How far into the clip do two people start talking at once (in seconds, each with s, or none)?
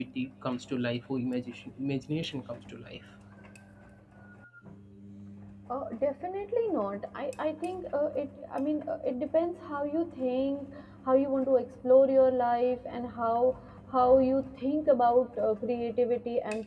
none